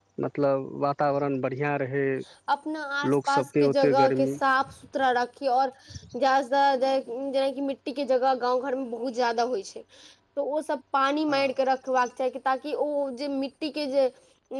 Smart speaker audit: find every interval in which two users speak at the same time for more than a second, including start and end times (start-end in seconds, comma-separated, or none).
3.1-4.3